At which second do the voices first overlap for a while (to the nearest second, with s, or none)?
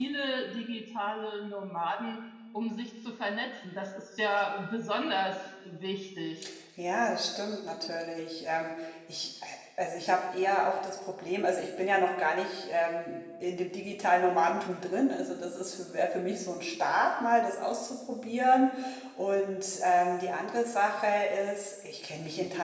none